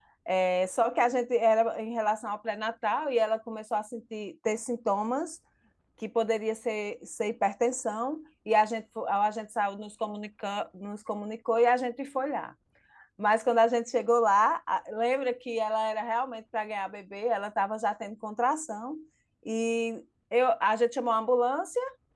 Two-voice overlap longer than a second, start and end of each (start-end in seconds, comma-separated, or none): none